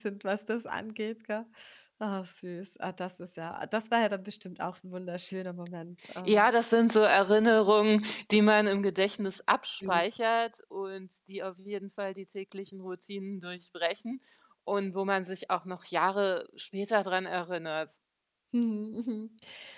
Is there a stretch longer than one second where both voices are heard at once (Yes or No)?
No